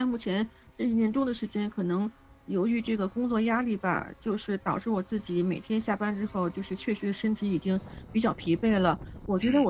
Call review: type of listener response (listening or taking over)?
listening